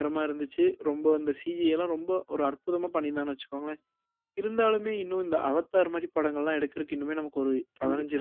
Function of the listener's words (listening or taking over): taking over